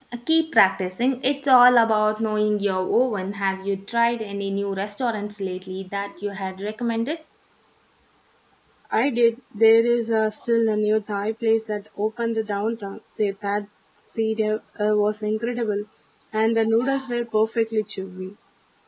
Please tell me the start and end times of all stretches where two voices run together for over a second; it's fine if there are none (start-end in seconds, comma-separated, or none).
none